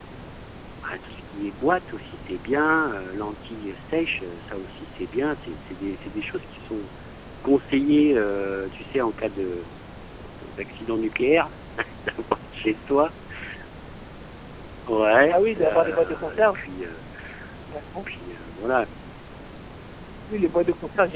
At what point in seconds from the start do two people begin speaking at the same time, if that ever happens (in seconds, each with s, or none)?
15.3 s